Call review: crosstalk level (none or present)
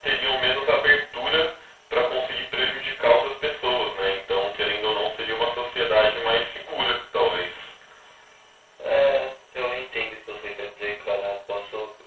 none